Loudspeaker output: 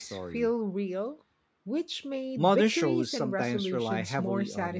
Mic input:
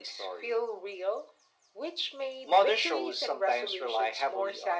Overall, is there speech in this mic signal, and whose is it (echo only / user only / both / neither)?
echo only